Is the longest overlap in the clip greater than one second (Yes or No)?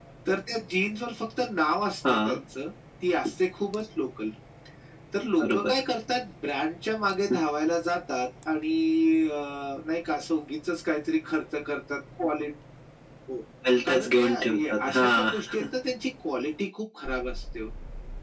Yes